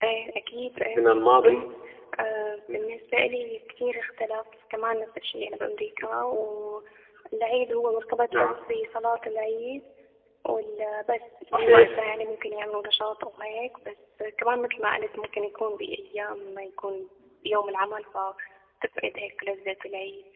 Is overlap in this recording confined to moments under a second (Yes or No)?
Yes